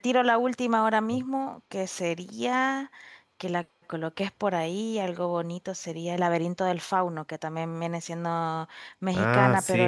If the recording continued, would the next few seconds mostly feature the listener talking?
No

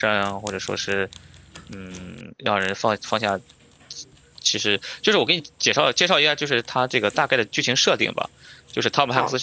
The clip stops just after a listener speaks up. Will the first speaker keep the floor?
No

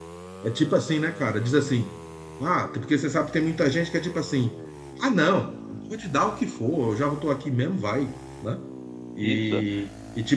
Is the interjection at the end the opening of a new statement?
No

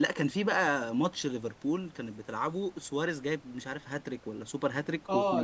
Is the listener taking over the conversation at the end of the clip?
Yes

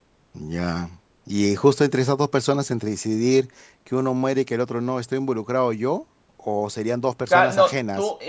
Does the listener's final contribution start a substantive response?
Yes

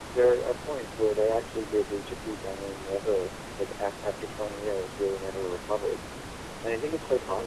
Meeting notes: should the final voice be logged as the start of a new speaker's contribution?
No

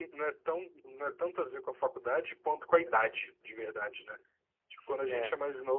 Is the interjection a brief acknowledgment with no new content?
Yes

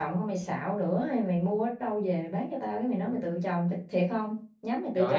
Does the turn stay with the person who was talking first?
No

